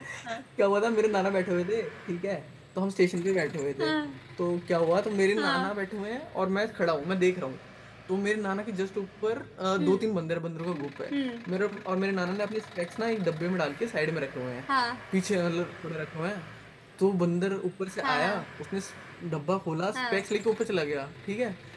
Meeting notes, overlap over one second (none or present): none